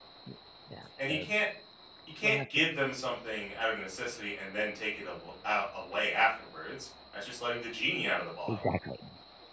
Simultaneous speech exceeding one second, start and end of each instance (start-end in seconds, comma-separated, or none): none